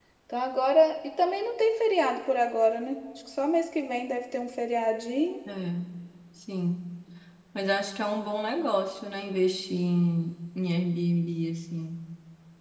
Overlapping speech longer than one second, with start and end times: none

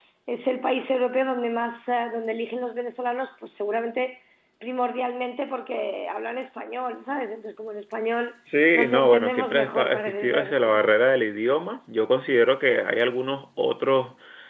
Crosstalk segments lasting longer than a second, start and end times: 8.8-10.6

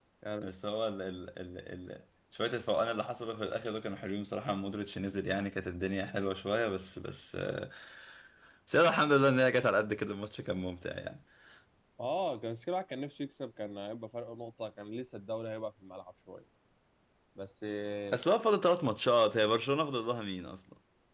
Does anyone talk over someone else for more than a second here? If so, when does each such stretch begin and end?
none

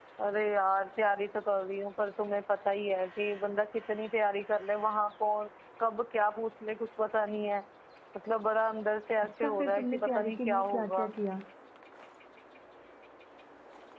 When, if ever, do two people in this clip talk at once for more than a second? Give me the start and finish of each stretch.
9.2-11.1

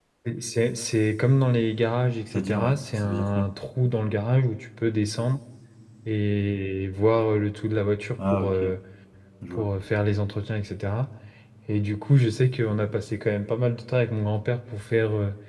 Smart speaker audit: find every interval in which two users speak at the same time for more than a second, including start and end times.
2.3-3.5

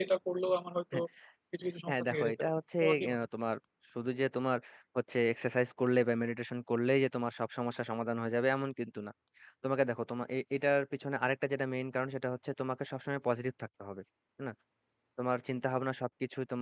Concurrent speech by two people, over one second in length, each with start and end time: 1.9-3.2

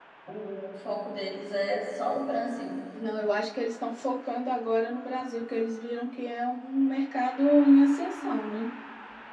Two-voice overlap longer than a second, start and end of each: none

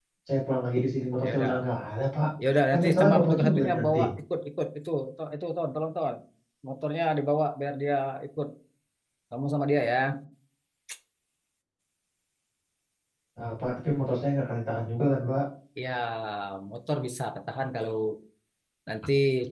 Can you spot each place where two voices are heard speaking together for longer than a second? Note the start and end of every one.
2.7-4.0

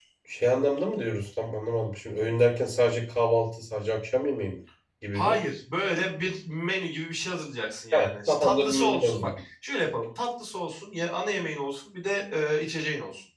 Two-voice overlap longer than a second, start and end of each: 7.9-9.3

